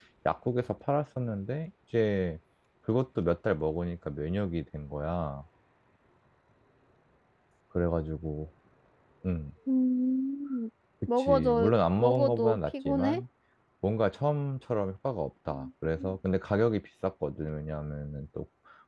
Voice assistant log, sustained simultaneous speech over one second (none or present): present